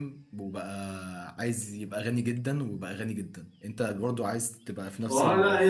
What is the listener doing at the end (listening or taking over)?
taking over